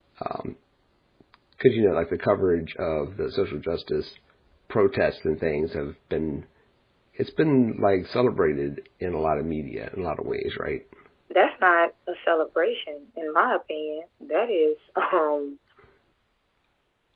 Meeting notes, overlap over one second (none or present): none